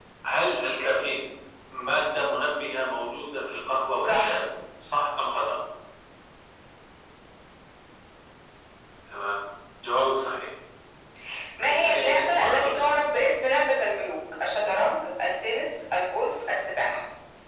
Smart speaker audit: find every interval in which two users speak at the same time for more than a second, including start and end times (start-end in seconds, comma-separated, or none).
11.7-13.0